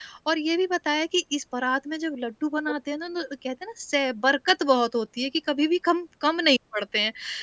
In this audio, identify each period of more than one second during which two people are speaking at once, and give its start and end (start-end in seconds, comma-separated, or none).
none